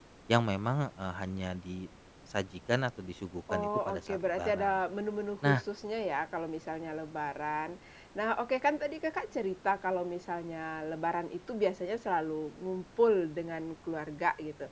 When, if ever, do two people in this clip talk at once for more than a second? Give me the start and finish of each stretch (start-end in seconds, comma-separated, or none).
3.5-4.8